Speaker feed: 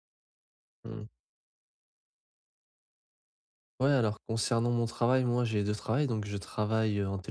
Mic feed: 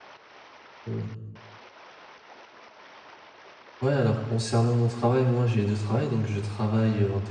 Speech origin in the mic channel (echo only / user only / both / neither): echo only